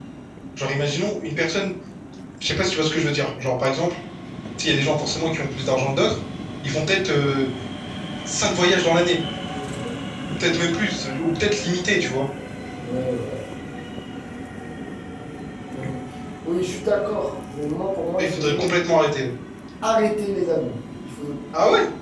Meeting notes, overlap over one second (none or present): none